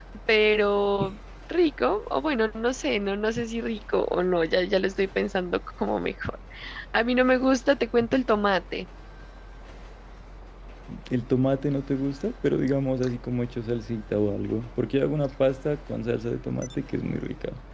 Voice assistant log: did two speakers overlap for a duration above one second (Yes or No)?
No